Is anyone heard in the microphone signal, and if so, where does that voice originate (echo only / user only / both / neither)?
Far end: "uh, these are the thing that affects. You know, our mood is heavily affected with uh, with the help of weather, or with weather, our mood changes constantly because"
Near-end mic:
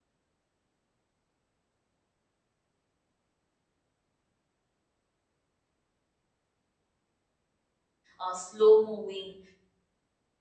user only